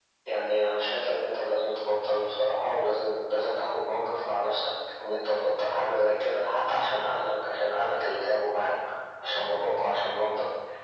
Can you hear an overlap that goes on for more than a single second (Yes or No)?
No